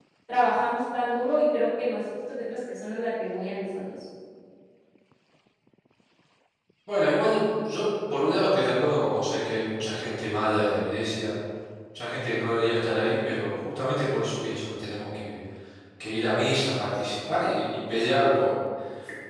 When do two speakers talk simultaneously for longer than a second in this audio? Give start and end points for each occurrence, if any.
none

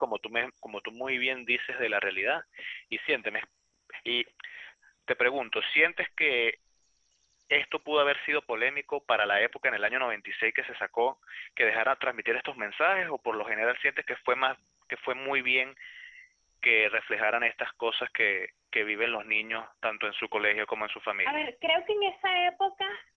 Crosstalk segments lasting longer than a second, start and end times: none

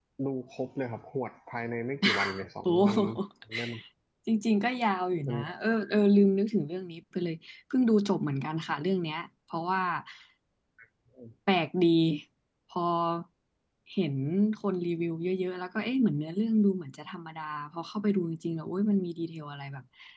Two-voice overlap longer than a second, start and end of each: none

